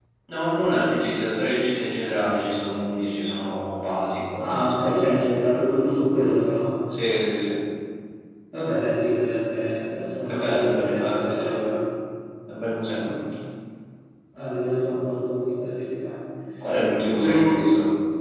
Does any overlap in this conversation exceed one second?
Yes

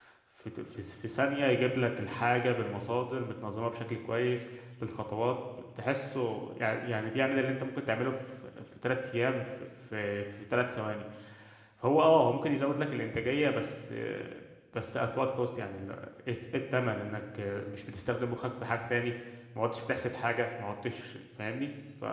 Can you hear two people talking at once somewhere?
No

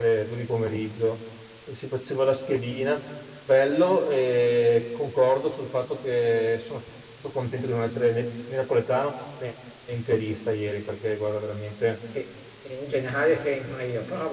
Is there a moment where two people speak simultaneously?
No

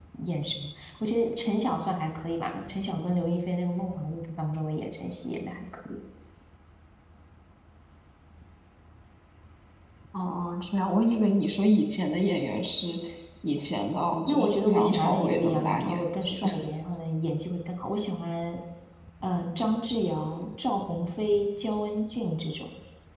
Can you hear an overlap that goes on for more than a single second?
Yes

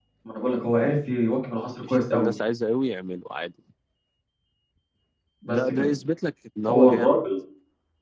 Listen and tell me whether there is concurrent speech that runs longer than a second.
No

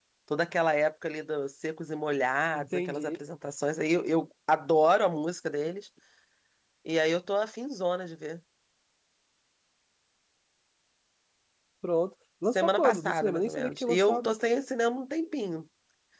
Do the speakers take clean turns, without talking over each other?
No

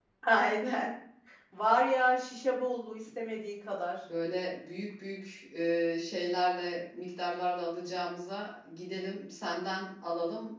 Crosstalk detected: No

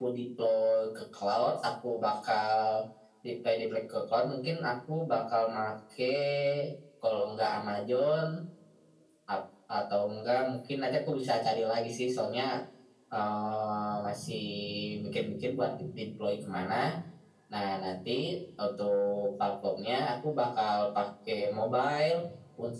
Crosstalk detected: No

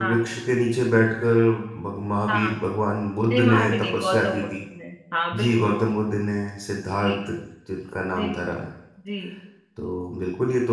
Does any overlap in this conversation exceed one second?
Yes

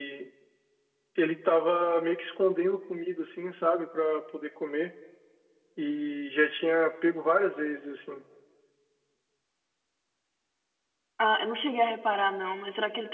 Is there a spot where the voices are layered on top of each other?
No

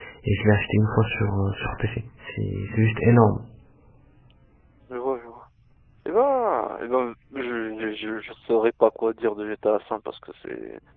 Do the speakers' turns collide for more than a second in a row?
No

